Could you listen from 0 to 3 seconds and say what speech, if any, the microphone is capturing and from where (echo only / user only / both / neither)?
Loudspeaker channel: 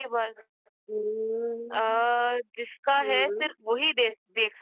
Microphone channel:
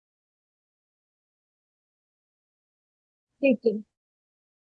neither